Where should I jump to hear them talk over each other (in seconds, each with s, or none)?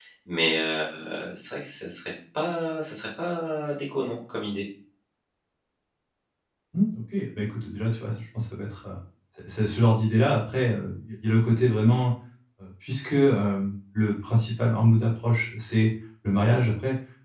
none